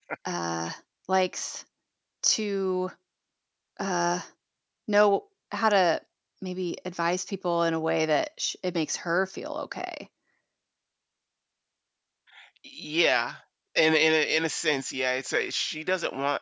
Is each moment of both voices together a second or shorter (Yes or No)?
Yes